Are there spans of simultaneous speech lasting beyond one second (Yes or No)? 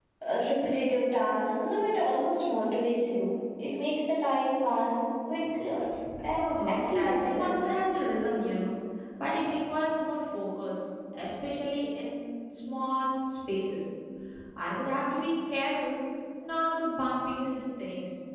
Yes